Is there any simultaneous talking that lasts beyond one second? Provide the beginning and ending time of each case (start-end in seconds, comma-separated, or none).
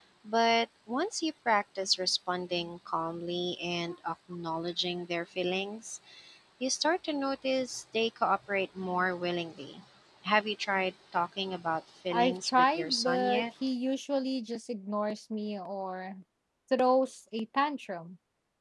12.1-13.4